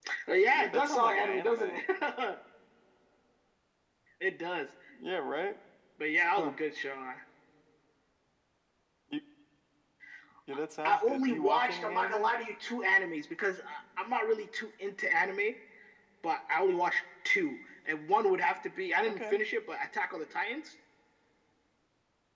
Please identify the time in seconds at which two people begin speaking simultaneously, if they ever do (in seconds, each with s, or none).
0.6 s